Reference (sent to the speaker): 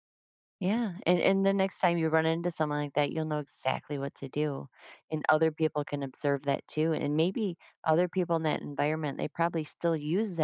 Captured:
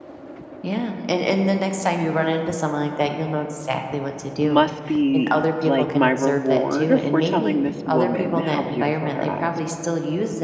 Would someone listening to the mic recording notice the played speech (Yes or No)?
Yes